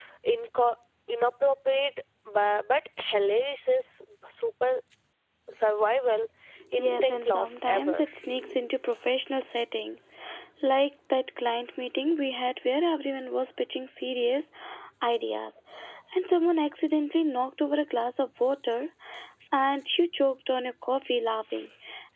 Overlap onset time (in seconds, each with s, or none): 6.8 s